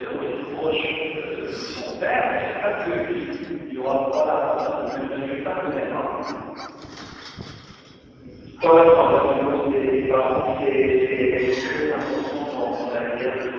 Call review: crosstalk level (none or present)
none